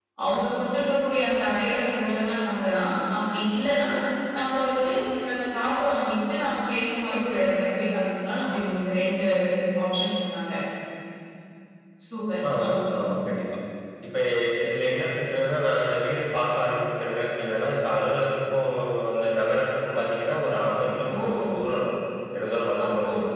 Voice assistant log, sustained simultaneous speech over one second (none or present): none